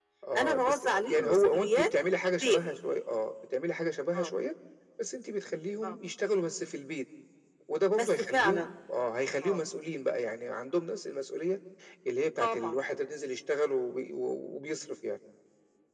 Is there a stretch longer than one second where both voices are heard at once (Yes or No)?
Yes